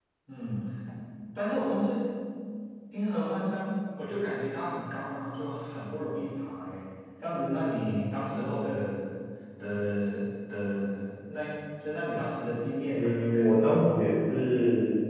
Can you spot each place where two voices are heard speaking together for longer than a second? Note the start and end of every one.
12.9-14.4

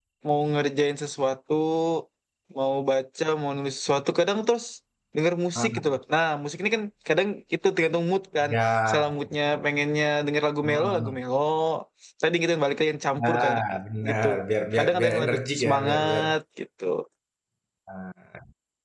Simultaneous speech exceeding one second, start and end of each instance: 14.7-16.2

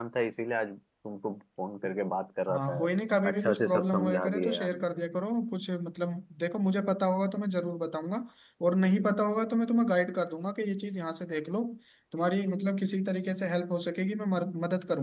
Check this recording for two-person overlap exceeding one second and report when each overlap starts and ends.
3.3-4.8

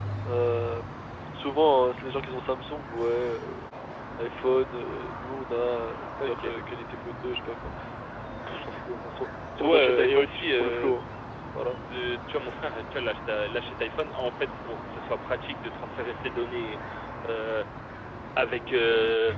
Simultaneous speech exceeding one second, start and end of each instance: 9.6-10.9

